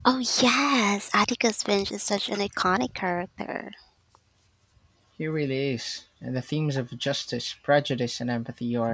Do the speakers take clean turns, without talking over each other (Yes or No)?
Yes